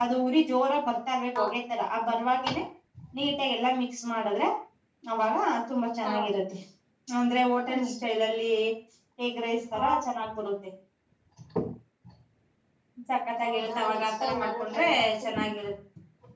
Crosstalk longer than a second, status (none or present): present